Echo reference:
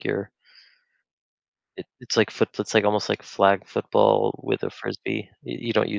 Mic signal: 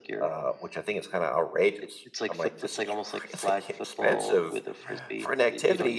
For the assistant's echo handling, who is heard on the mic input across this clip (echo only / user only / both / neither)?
both